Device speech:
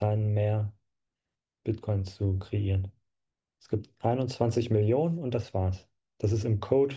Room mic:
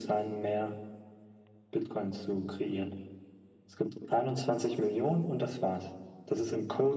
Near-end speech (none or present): none